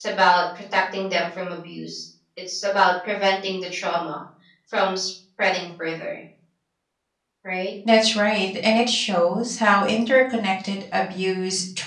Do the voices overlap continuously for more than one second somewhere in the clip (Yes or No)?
No